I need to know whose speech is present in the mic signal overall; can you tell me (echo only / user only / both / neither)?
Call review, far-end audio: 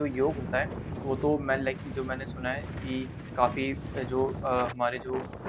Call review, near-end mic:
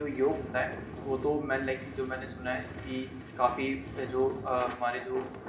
echo only